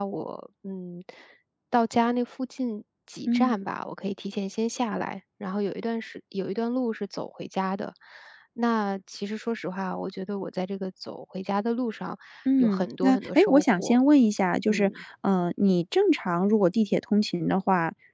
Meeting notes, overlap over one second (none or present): present